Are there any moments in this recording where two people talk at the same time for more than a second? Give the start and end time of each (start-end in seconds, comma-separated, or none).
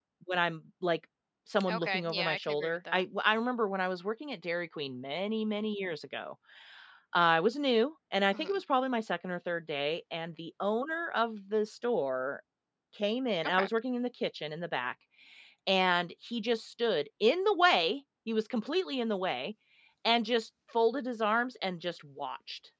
1.7-3.0